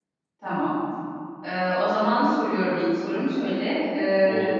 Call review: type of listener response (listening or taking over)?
listening